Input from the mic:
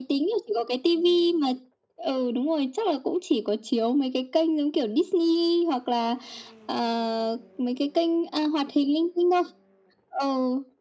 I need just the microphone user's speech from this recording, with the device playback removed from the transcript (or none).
none